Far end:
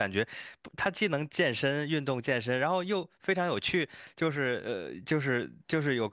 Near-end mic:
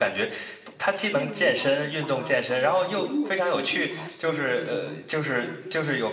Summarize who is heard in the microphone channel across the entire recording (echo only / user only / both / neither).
both